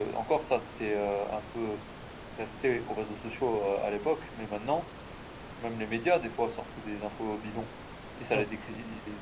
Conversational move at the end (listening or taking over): listening